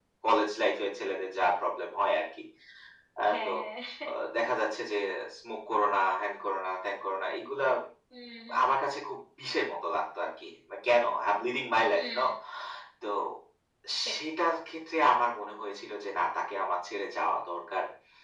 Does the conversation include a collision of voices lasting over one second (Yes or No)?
No